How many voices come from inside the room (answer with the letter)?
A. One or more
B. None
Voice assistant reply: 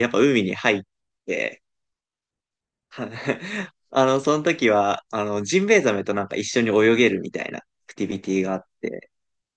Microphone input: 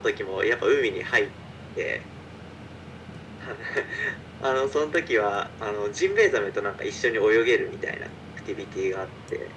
B